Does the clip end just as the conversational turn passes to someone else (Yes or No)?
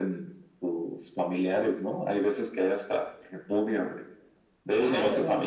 No